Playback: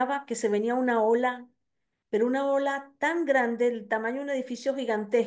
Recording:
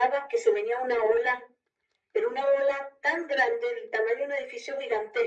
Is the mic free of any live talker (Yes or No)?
Yes